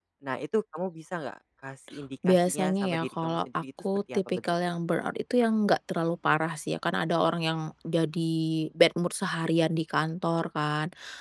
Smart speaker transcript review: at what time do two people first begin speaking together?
2 s

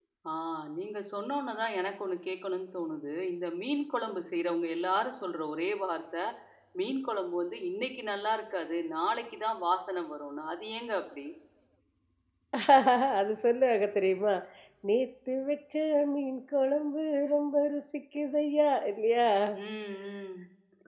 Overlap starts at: none

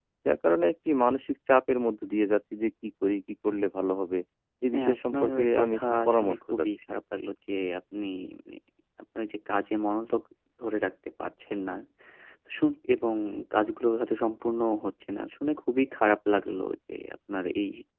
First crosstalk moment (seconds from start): 5 s

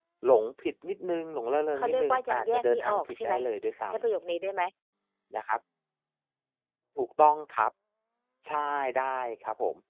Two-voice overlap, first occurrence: 2 s

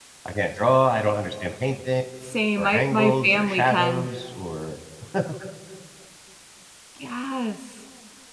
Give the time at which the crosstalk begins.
3 s

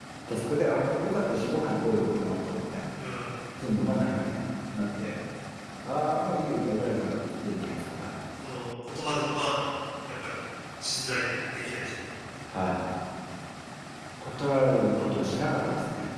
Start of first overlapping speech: none

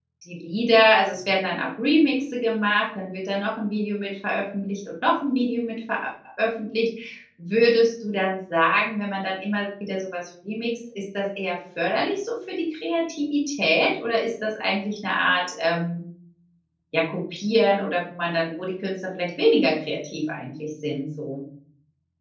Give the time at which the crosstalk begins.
none

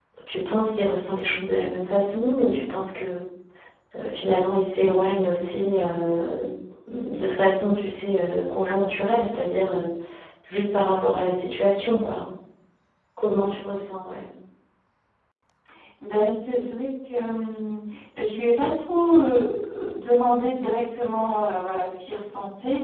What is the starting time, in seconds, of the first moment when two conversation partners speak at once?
none

